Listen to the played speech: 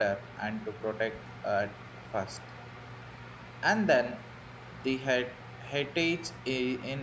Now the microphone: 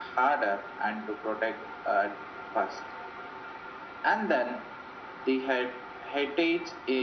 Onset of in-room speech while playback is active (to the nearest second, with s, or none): none